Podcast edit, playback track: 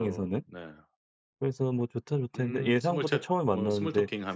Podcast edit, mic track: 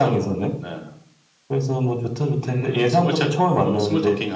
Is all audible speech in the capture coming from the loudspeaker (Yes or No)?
Yes